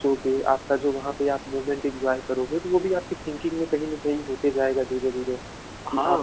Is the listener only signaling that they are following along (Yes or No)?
No